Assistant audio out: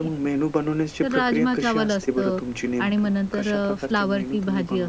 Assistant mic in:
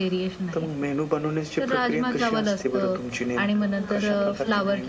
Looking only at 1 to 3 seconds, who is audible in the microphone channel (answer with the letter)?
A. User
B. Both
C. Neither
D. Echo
D